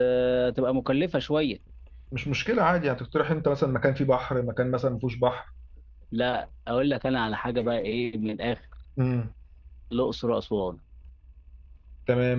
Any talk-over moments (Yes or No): No